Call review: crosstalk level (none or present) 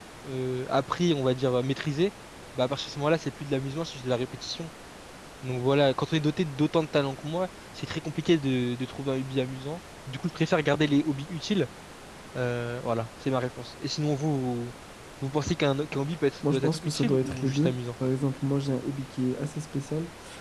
present